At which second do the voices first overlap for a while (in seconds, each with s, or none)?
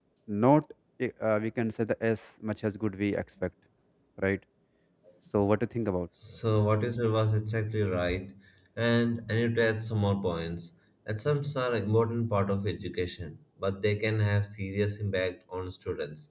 none